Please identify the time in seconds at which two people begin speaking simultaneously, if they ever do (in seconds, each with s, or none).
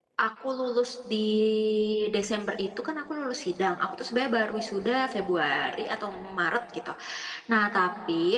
none